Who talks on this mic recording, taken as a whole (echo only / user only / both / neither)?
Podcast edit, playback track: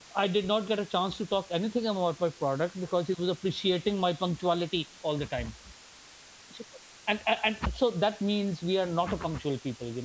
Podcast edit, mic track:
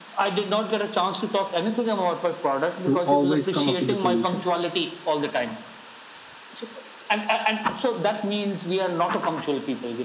both